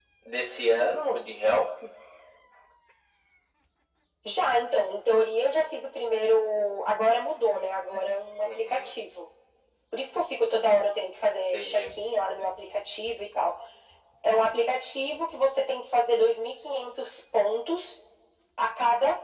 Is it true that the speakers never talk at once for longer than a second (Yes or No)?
Yes